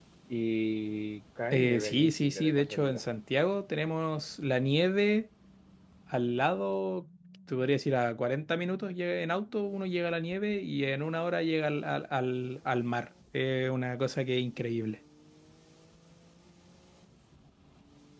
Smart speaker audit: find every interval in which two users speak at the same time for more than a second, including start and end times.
1.5-3.0

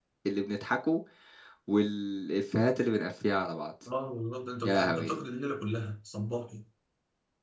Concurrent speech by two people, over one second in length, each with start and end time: none

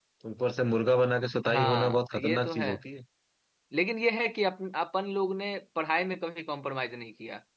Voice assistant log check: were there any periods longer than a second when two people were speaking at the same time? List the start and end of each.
1.5-2.7

